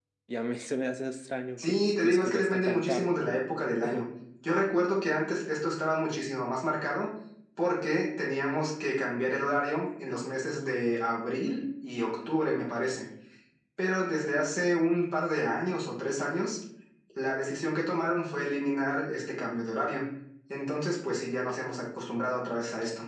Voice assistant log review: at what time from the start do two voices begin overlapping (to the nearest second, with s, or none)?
2 s